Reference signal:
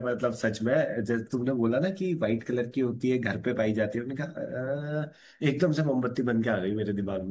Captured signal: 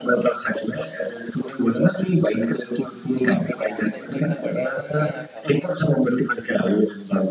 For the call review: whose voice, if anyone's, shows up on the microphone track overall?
both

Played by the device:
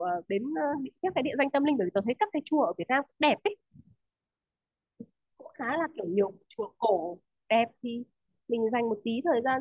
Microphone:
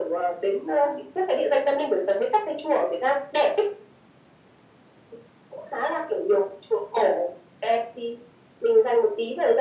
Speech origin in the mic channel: echo only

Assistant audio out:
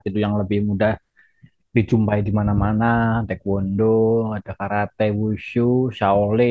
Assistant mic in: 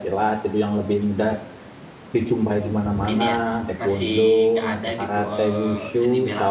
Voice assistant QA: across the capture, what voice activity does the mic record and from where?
both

